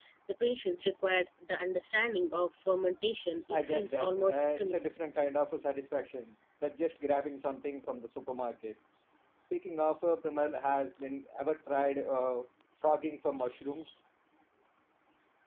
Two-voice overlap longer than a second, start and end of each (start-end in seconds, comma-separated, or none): 3.5-4.8